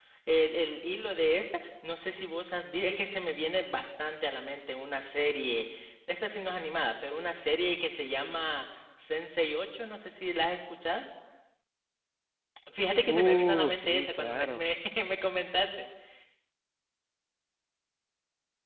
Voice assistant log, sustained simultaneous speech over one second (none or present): present